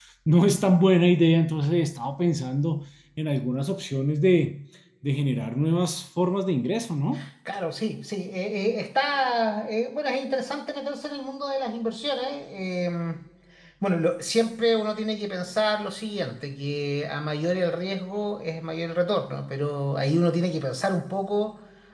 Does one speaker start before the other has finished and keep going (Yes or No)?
No